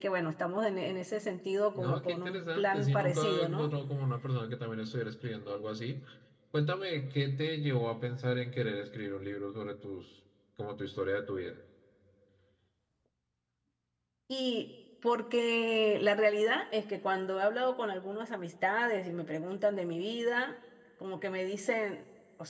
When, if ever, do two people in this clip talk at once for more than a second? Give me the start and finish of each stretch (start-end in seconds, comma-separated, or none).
1.8-3.7